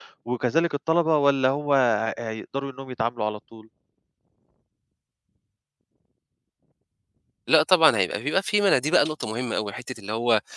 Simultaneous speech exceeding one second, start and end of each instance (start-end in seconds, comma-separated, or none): none